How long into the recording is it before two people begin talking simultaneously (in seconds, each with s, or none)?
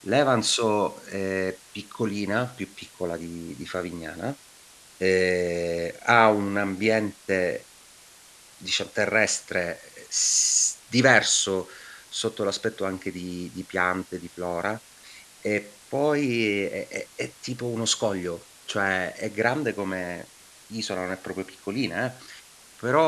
none